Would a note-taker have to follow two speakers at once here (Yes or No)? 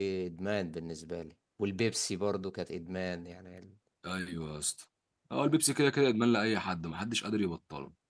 No